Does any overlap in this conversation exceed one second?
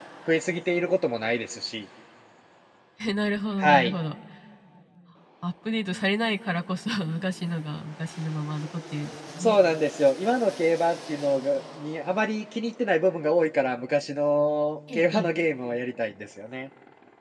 No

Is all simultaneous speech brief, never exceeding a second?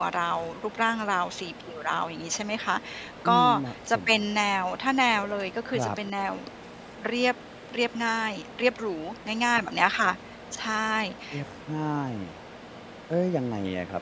Yes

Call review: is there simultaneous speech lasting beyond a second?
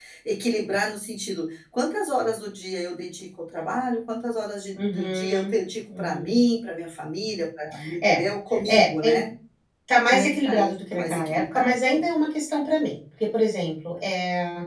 Yes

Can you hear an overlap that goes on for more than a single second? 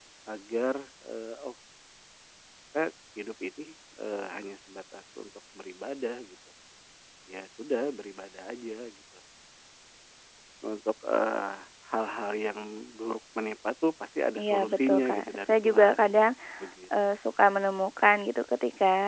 Yes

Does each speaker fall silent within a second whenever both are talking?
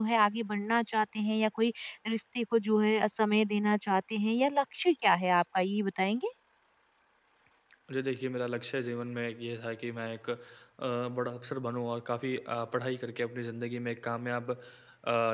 Yes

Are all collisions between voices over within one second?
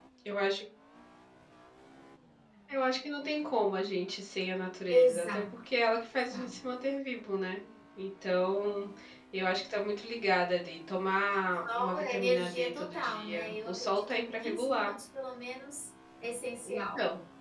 No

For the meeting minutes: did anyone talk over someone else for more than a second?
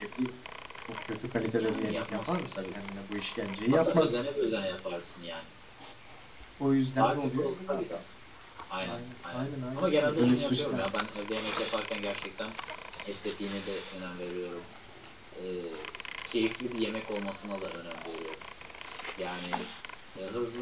Yes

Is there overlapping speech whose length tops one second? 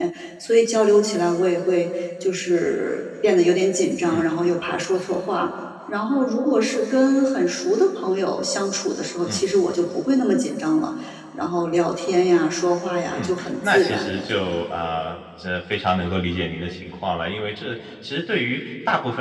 Yes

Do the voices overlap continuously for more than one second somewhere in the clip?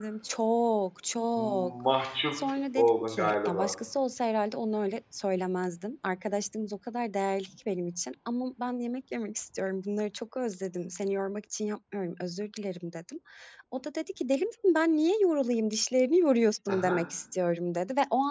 Yes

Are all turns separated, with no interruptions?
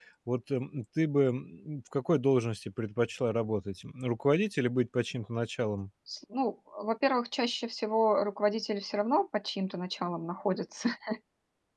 Yes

